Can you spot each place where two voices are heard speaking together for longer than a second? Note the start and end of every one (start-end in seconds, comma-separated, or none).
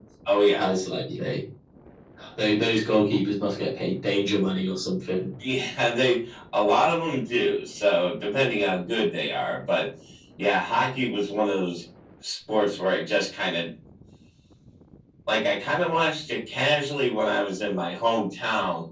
none